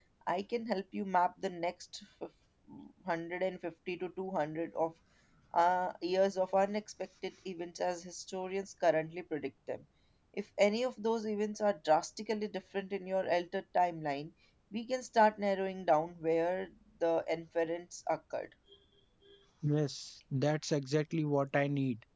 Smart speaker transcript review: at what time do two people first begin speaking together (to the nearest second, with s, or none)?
none